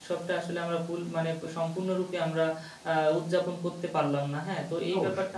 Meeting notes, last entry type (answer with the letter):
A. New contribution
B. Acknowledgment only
B